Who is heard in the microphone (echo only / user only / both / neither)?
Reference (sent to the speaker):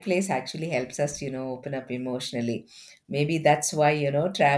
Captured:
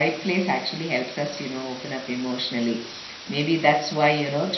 echo only